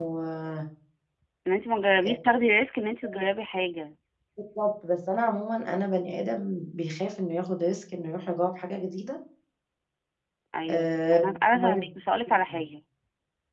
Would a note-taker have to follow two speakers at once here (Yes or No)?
Yes